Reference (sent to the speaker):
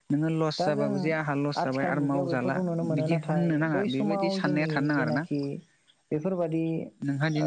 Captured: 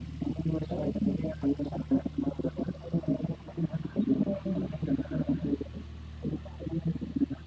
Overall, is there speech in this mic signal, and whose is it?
echo only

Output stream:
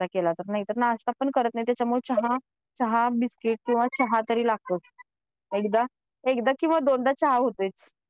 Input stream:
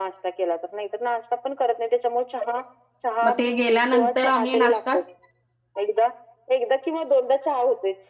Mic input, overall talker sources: both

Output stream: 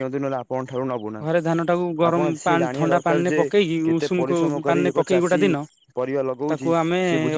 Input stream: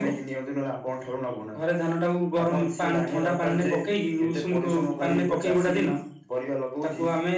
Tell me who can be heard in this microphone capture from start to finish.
echo only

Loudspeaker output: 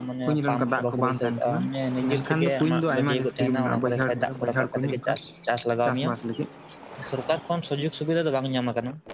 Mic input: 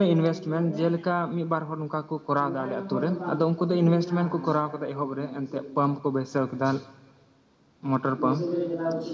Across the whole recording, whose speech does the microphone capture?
user only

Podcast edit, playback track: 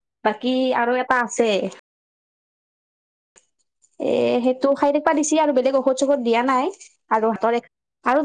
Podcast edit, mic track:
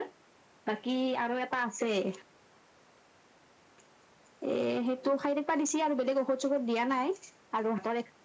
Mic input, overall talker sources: echo only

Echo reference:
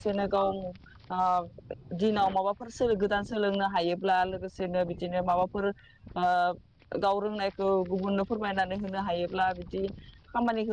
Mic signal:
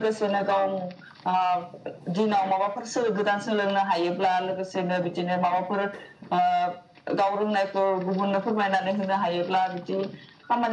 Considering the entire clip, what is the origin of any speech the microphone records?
echo only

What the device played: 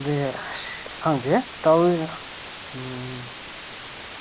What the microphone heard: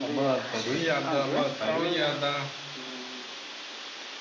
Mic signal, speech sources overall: both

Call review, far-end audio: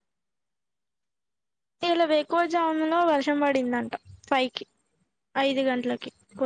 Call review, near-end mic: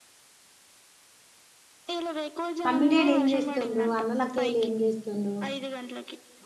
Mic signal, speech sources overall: both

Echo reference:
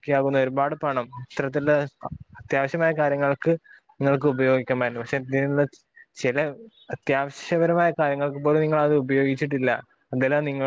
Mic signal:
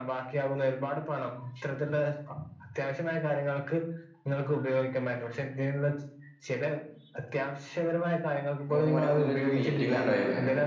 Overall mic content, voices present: both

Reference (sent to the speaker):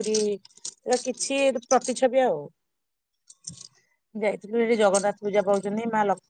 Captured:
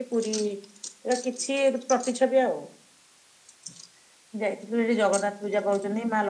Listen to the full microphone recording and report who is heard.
echo only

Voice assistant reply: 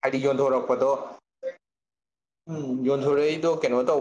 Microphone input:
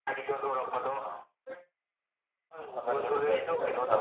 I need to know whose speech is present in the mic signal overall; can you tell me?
both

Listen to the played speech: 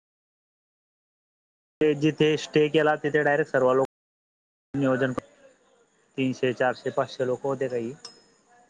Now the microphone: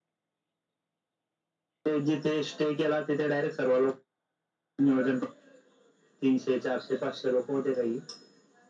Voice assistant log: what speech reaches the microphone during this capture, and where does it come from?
echo only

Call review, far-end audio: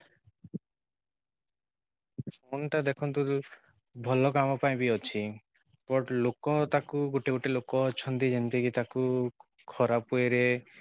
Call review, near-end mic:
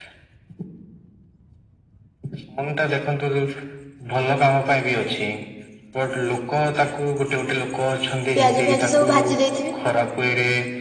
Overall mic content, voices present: both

